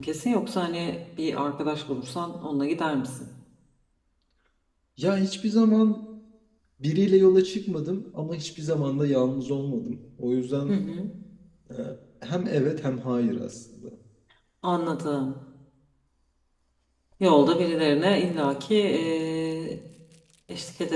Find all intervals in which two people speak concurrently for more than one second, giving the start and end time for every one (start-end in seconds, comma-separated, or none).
none